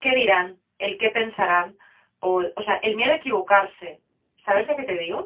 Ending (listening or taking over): taking over